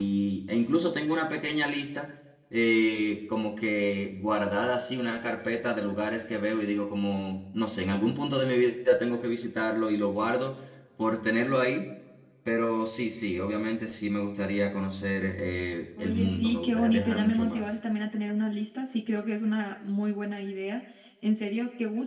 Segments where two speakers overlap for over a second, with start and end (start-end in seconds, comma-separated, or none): 16.0-17.6